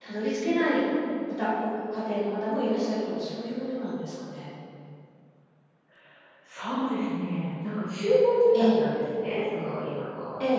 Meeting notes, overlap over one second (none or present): none